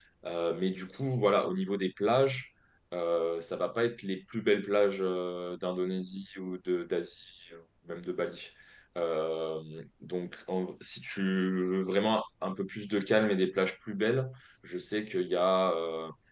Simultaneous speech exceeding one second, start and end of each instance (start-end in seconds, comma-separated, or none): none